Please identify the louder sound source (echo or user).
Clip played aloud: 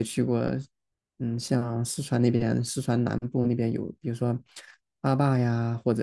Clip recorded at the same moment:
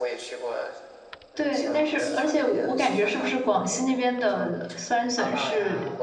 user